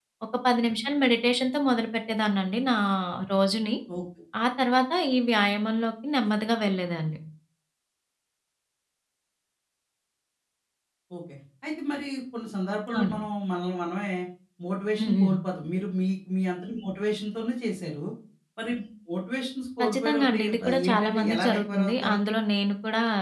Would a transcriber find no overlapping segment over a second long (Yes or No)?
No